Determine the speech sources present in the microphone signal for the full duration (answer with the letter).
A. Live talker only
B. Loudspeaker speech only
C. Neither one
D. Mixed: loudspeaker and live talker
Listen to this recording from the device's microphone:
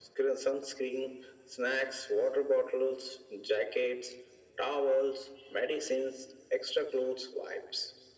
B